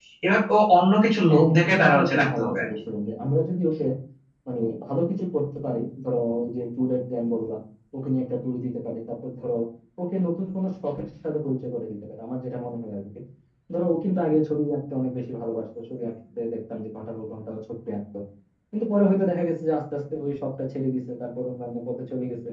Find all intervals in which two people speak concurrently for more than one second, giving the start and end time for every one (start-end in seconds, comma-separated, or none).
1.3-2.6